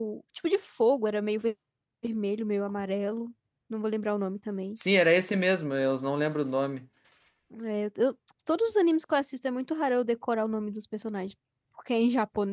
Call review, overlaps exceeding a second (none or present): none